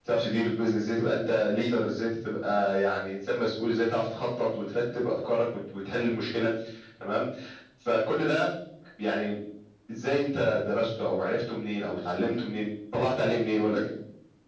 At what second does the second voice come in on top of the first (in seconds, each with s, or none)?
none